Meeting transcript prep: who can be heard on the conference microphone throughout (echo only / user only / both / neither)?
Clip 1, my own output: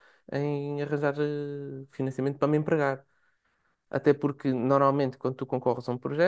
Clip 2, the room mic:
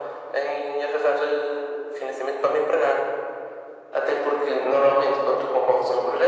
echo only